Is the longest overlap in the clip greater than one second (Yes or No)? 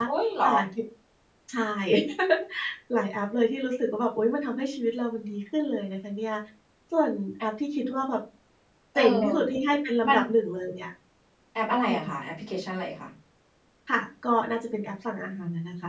No